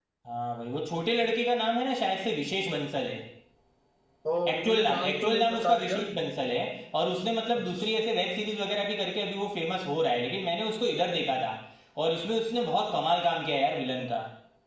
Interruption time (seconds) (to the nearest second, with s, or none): 5 s